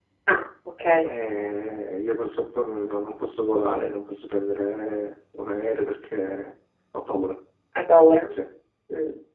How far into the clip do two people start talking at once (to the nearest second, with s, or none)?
none